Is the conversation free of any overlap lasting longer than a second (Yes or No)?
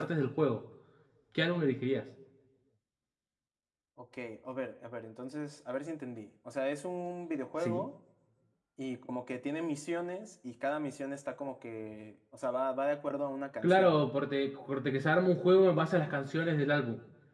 Yes